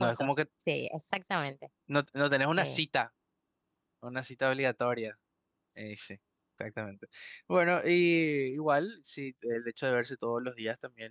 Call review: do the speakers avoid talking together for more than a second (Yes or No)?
Yes